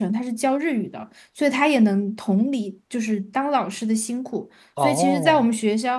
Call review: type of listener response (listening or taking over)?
listening